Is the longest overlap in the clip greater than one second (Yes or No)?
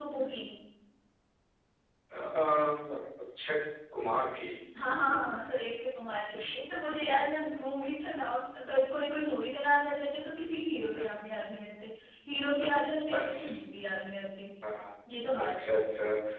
No